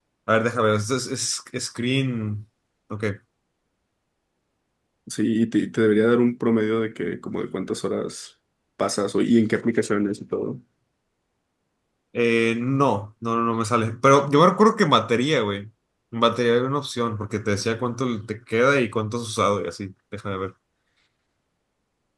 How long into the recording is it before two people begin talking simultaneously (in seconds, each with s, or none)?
none